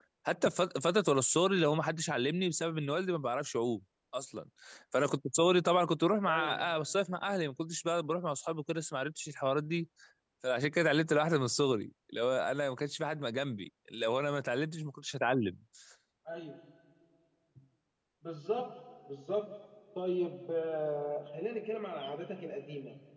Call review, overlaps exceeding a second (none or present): none